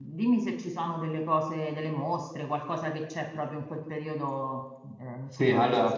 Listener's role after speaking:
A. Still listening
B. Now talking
B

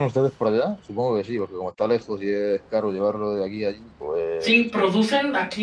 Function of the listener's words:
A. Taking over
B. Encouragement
A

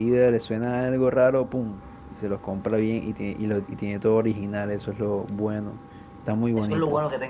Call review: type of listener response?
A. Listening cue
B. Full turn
B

